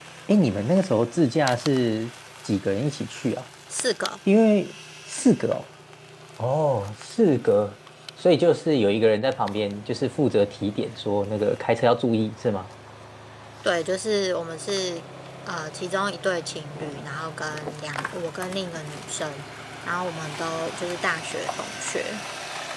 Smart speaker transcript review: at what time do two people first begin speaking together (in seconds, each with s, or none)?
none